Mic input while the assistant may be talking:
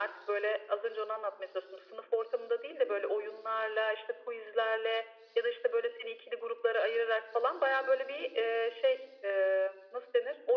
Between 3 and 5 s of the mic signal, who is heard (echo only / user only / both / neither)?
echo only